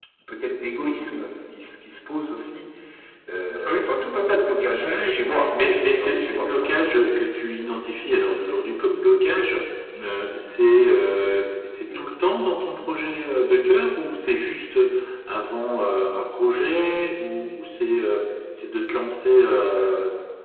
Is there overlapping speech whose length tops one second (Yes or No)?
Yes